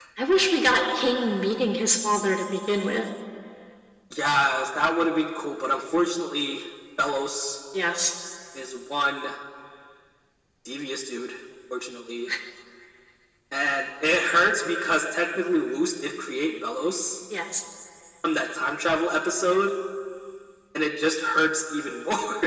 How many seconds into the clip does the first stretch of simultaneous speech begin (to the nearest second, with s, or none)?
none